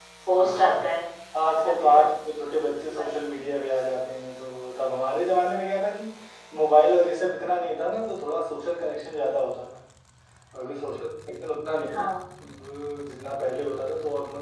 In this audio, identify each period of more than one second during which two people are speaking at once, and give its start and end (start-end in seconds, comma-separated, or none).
none